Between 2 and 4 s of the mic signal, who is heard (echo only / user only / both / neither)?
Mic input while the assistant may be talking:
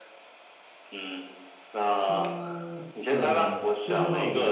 both